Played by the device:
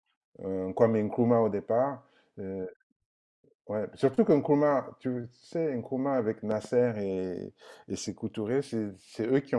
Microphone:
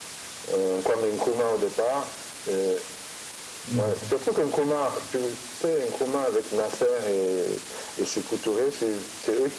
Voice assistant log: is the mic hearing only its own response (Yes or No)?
No